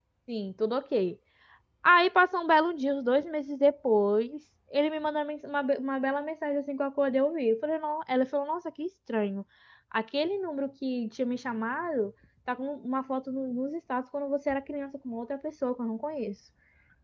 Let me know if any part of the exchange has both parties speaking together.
No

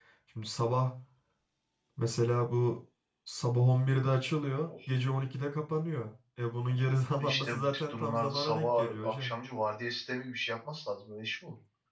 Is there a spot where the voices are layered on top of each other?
Yes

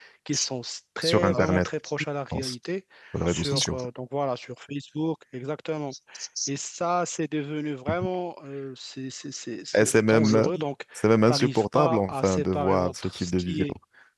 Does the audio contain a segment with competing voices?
Yes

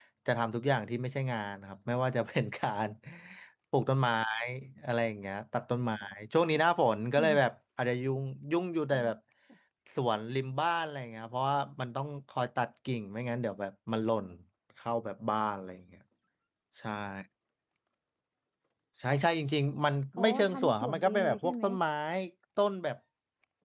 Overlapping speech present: Yes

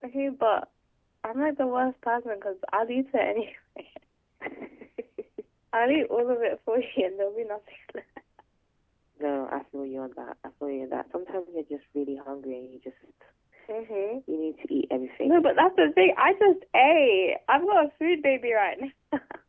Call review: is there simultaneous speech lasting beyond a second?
No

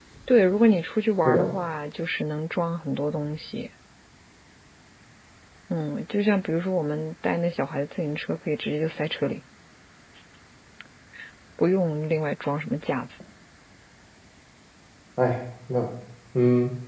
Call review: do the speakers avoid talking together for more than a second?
Yes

